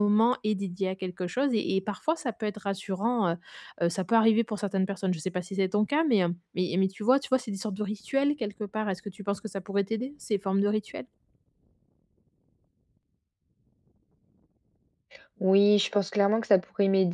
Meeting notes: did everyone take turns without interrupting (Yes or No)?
Yes